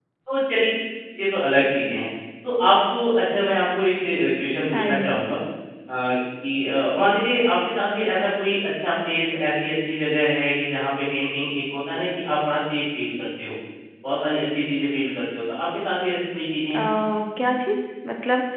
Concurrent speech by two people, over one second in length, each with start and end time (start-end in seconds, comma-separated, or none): none